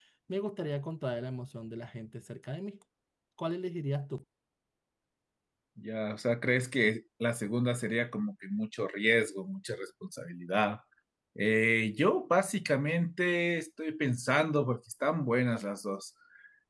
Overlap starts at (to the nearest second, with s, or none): none